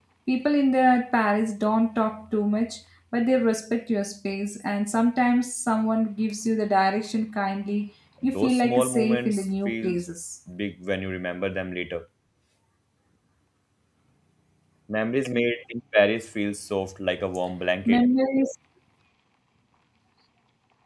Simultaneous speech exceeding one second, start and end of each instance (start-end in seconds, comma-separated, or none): 8.2-9.9